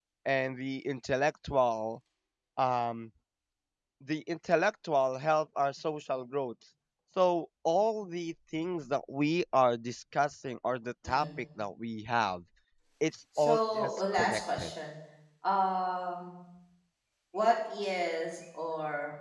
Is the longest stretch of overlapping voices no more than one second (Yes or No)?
No